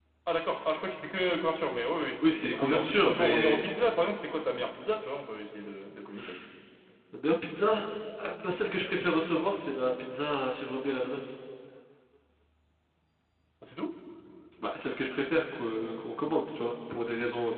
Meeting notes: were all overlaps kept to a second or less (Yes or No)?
No